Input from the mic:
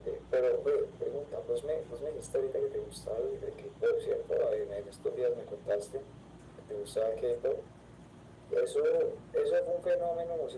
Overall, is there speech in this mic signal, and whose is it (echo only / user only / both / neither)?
echo only